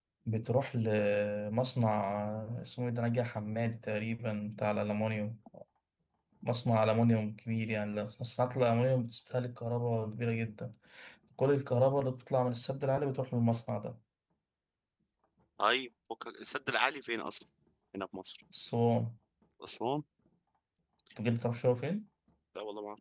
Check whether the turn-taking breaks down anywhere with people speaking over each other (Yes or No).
No